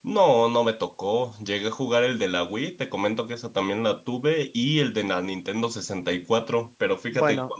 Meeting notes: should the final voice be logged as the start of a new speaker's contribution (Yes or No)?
No